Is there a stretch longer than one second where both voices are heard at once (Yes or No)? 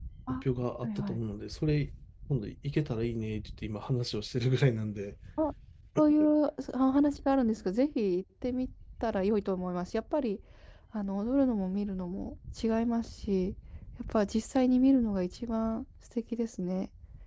No